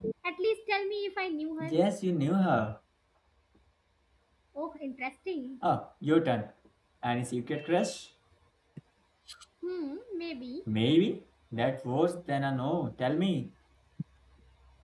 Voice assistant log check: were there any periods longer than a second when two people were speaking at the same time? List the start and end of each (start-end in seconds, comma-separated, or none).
none